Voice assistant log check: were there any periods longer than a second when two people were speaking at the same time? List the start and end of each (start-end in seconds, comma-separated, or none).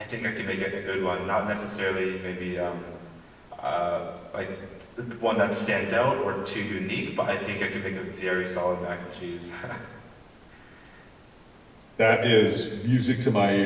none